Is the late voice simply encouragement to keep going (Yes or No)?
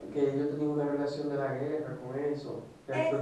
No